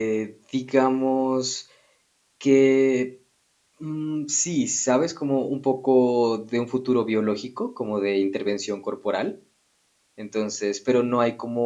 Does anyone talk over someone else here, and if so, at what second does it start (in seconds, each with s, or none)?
none